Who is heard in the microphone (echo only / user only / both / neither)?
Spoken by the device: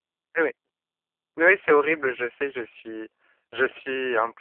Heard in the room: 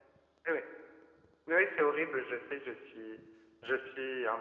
echo only